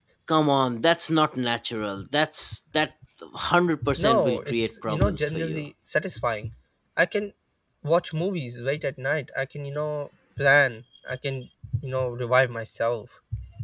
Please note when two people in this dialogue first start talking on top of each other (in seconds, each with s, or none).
3.8 s